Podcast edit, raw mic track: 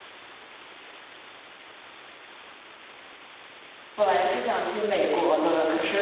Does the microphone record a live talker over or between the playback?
Yes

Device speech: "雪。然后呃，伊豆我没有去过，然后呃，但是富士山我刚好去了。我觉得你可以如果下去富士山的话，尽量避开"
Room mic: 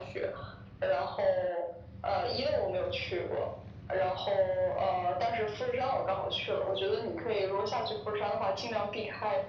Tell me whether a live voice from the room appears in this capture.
No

